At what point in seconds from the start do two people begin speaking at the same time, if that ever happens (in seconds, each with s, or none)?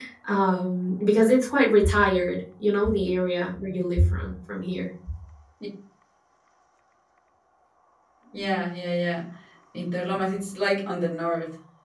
none